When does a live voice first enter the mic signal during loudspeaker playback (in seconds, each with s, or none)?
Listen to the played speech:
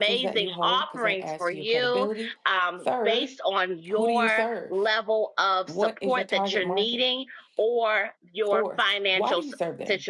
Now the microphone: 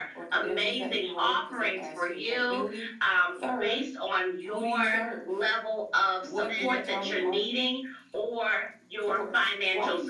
6.5 s